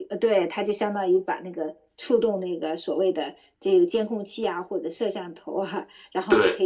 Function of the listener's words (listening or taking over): listening